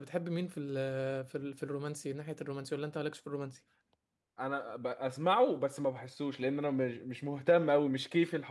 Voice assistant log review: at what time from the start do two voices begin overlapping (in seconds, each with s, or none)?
none